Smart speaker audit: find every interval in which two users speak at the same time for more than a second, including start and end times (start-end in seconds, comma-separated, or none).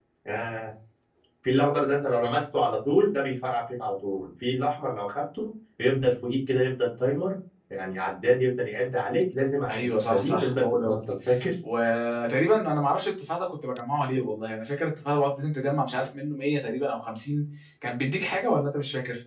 9.7-11.0